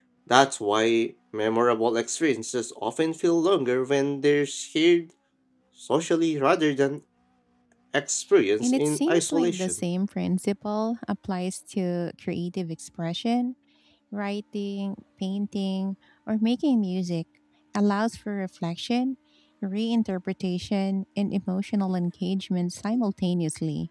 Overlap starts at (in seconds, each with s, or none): 8.6 s